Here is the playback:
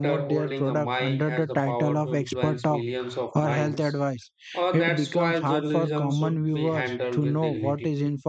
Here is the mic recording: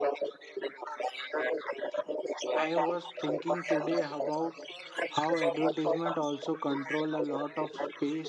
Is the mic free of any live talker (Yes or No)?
No